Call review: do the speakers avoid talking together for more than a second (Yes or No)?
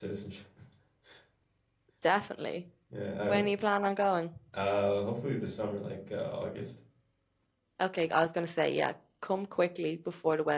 Yes